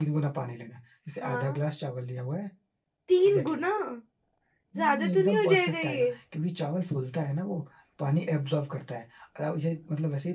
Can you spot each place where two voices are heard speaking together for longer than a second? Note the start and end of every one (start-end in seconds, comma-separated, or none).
4.8-6.1